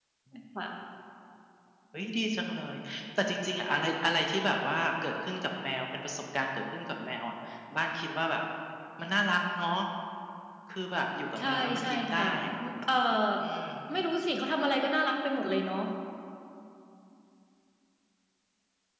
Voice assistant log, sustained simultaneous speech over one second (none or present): present